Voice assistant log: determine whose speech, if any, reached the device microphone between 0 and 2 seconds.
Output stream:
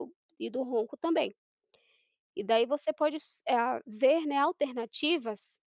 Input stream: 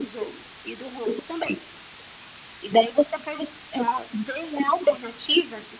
echo only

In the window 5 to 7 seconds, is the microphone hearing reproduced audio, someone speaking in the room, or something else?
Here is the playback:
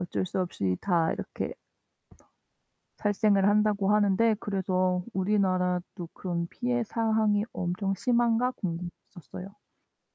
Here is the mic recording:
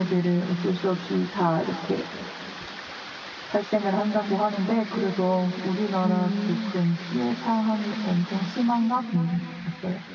both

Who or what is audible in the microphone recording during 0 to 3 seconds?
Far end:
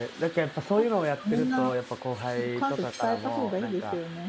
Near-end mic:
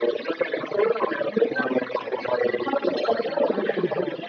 both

